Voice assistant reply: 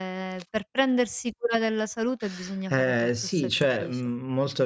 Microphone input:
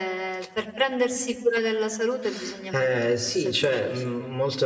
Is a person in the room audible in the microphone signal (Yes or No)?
No